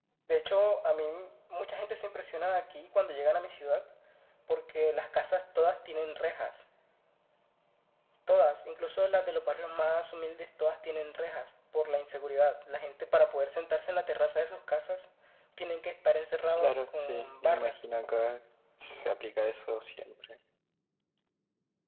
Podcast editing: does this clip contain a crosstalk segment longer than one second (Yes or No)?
Yes